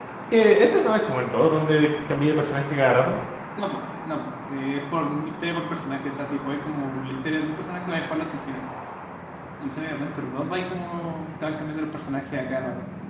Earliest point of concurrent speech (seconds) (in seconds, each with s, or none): none